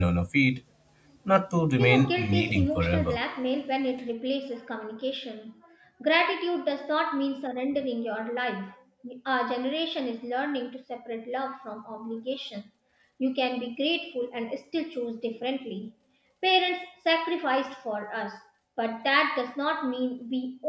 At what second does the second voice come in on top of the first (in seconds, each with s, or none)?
1.8 s